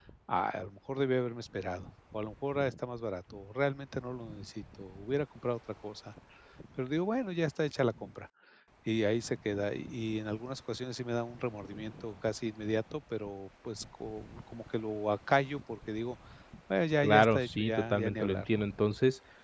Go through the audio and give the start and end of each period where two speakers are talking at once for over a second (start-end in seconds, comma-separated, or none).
17.0-18.6